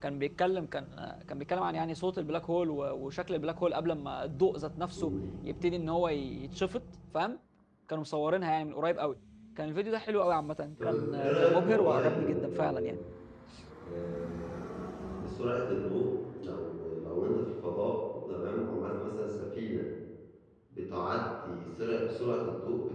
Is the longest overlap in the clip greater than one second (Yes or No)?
Yes